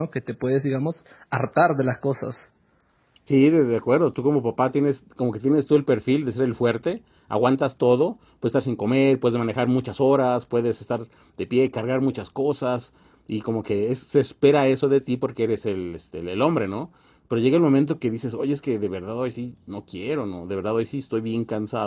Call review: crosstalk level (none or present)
none